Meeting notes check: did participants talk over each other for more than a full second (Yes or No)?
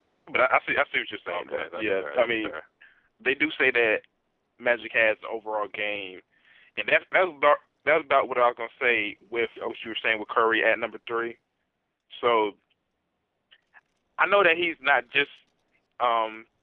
Yes